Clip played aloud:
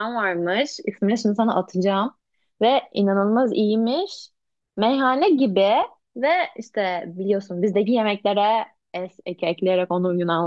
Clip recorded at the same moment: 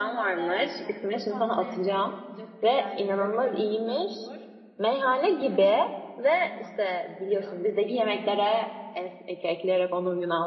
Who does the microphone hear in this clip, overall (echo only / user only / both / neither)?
both